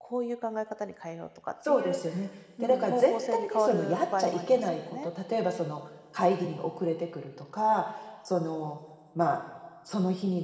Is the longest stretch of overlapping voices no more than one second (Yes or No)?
No